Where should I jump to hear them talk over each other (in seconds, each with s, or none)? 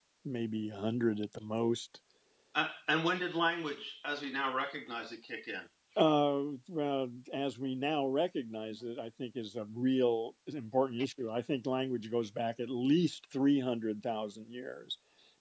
none